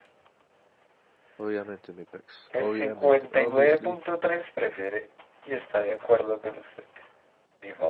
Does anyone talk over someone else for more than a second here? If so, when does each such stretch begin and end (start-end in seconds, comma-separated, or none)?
2.6-3.9